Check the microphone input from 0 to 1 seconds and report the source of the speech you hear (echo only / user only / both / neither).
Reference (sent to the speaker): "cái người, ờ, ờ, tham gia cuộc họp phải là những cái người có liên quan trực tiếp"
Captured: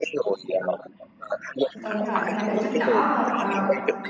echo only